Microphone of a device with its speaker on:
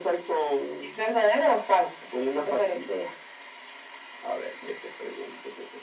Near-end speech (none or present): none